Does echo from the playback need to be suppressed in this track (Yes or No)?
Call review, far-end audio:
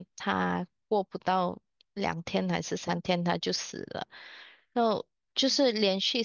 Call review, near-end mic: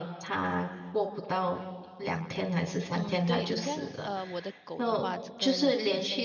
Yes